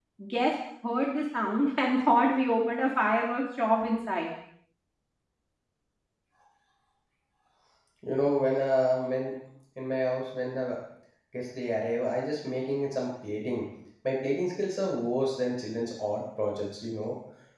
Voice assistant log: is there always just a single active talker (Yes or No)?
Yes